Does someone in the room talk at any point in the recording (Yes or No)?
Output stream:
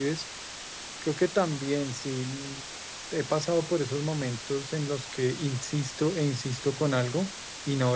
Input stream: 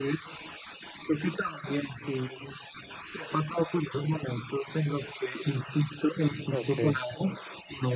Yes